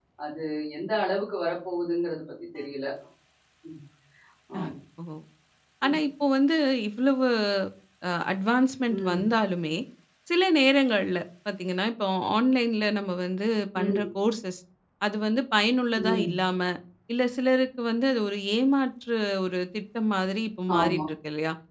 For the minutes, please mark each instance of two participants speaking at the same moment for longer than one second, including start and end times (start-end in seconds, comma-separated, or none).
none